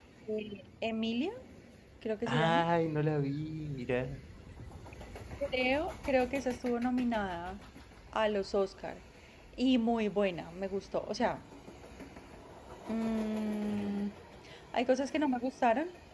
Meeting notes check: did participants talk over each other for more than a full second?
No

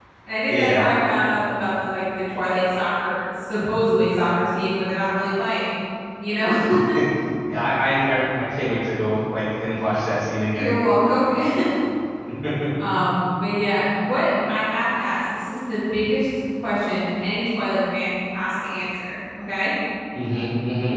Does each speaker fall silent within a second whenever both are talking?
Yes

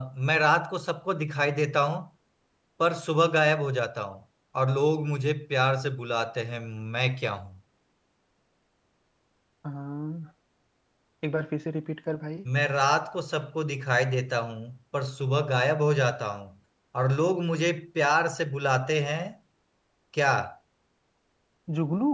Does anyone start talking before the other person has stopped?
No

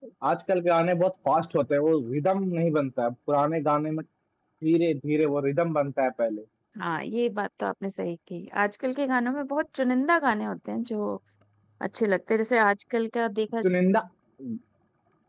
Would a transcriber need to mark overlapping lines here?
No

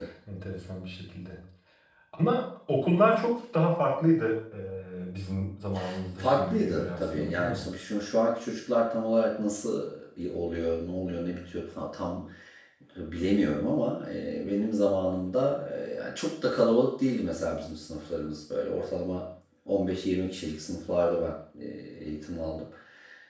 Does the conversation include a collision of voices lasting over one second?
Yes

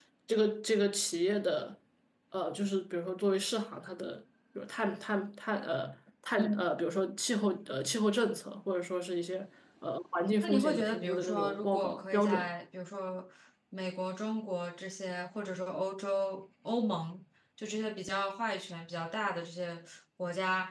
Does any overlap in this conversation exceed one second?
Yes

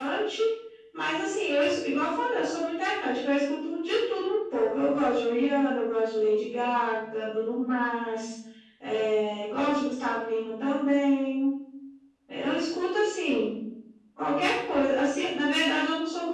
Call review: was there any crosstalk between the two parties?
No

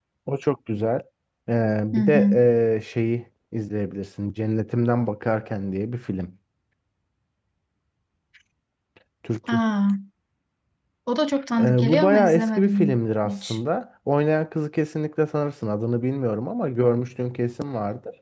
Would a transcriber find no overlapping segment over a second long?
No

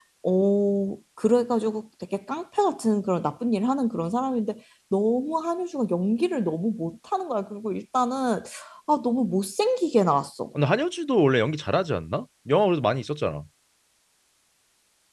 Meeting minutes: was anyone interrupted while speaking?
No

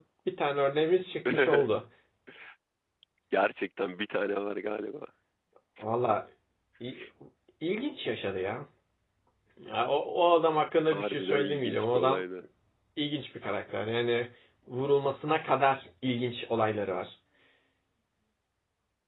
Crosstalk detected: Yes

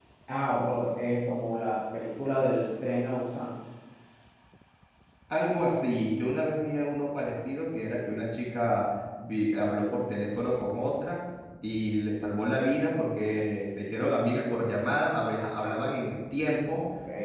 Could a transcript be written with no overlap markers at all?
Yes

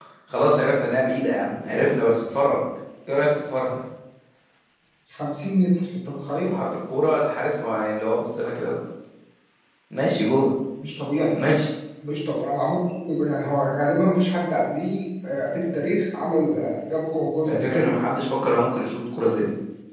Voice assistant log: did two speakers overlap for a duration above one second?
No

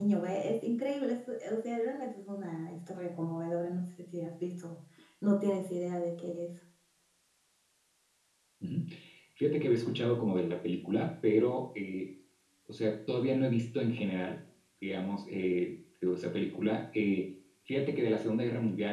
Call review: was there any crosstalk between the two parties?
No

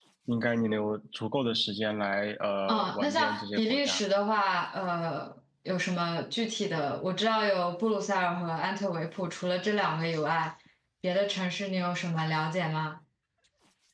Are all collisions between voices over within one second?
No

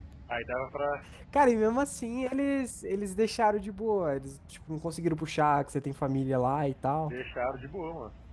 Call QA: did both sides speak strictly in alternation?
Yes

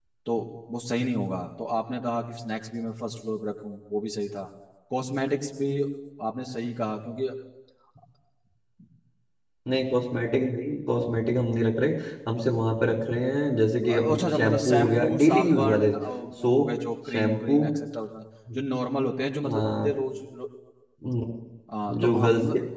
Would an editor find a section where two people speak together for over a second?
Yes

